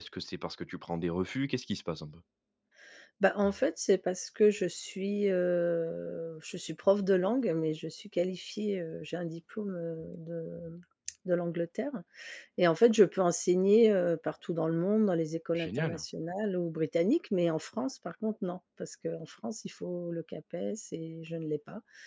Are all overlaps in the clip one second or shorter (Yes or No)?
Yes